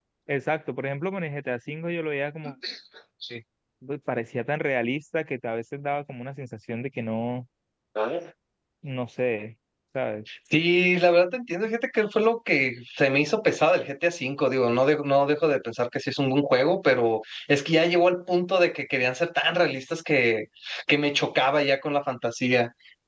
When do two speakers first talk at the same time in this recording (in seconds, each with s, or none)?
none